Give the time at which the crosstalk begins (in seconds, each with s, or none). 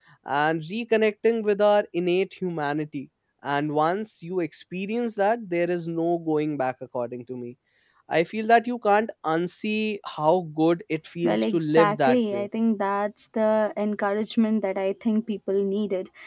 11.2 s